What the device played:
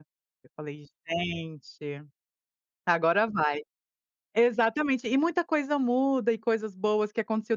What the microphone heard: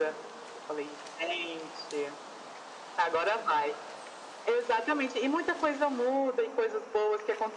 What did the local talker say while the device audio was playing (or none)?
none